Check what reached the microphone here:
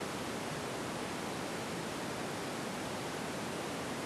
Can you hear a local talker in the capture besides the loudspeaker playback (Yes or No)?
No